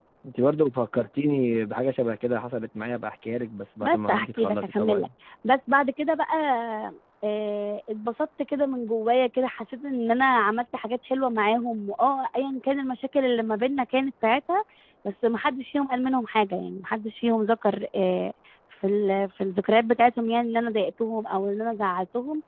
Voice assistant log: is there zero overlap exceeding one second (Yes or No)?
No